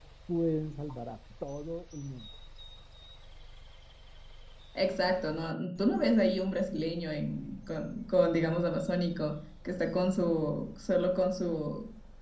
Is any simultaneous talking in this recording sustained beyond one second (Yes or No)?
No